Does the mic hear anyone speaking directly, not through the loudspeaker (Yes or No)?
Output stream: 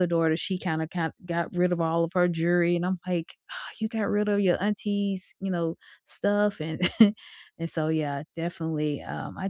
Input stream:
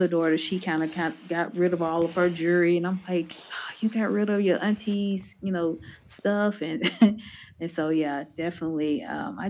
No